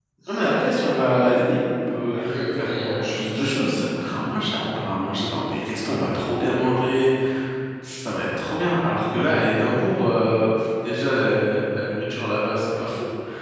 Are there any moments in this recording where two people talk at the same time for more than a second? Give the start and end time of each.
2.1-3.6

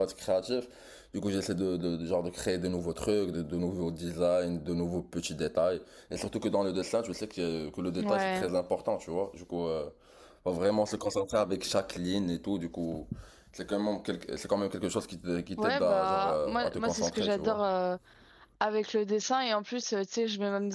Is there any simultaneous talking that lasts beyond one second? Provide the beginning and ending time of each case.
15.6-17.6

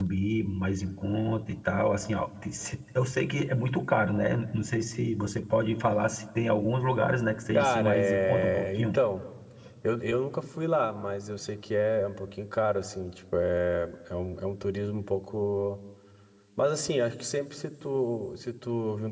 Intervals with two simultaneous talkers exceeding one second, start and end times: 7.5-9.0

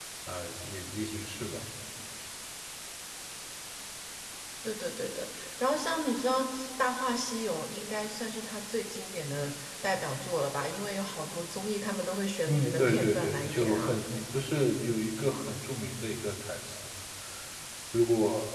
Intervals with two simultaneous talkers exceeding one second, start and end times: 12.5-13.9

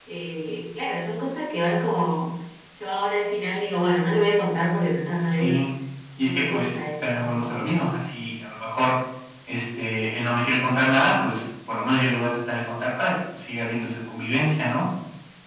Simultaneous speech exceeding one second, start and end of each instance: 6.2-7.6

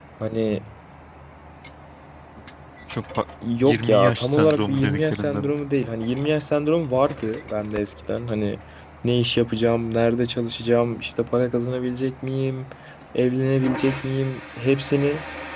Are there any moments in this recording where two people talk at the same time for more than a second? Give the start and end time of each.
3.6-5.5

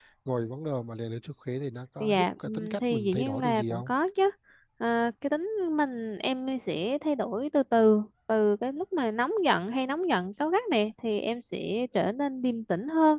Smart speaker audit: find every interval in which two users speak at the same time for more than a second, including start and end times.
2.0-3.9

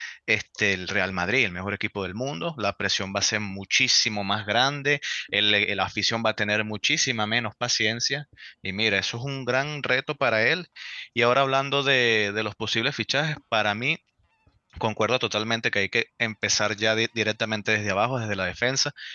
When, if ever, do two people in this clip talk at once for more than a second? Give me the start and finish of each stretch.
none

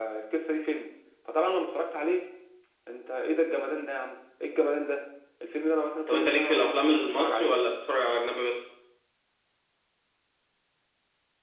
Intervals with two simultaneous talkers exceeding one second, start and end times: 6.1-7.6

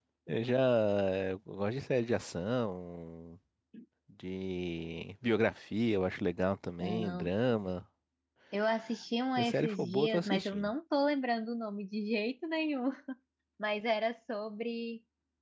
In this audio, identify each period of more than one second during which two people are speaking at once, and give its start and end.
9.4-10.7

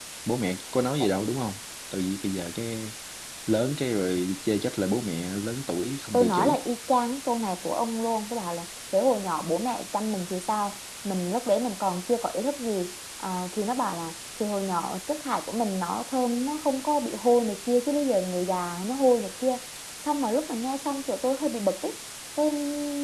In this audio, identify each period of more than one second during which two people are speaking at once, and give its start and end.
none

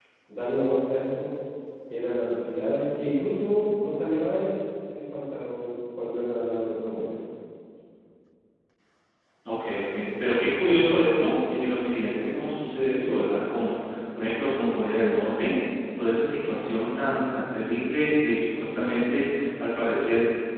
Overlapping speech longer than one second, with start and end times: none

